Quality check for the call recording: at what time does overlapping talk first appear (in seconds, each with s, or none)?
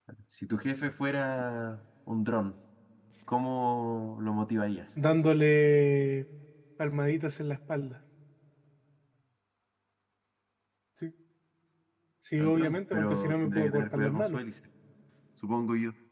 12.4 s